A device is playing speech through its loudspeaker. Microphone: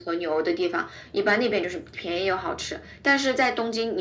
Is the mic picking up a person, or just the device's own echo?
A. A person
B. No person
B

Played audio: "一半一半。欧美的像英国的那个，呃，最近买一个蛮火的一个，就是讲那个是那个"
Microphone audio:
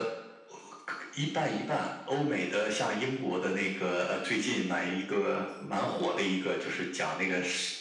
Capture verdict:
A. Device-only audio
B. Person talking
A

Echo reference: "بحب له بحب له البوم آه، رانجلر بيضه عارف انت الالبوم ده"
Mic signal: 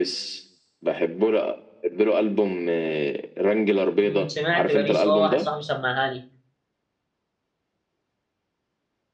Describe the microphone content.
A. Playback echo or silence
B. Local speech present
B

